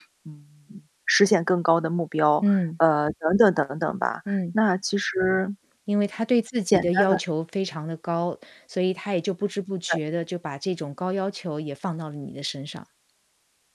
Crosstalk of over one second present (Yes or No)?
No